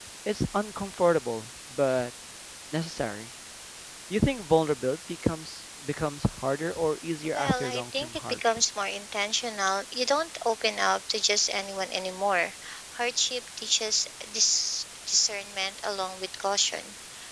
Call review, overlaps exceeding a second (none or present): present